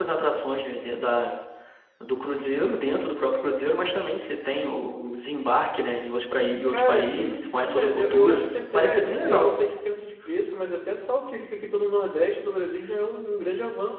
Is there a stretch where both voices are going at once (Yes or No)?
Yes